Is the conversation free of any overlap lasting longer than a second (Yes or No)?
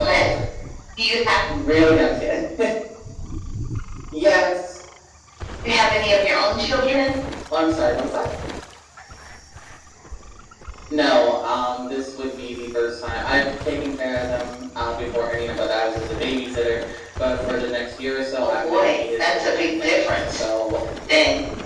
No